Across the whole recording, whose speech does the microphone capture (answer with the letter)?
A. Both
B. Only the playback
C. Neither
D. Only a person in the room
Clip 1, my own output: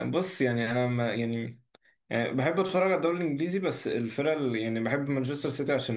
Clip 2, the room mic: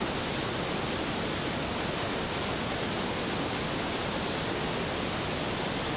C